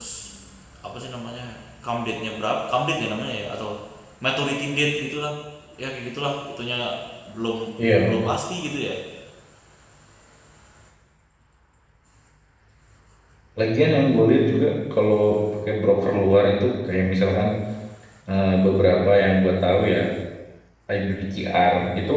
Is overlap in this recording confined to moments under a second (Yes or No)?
Yes